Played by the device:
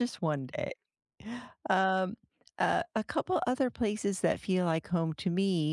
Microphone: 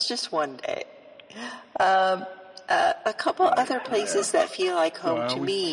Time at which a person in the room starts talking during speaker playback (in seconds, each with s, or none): 3.4 s